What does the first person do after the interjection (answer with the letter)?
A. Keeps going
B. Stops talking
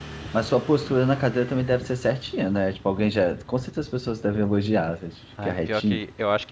B